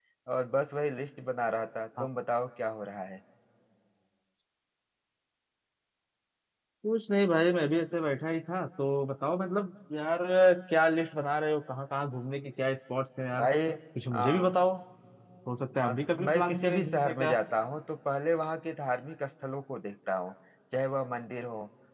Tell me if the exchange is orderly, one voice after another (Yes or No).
No